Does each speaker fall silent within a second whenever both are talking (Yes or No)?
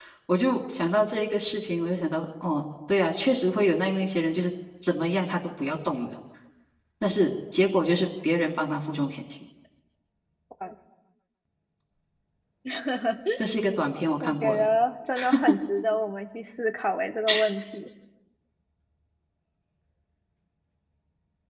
Yes